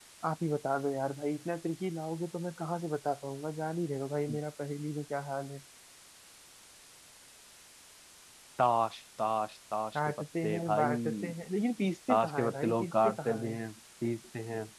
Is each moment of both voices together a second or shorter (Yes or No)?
No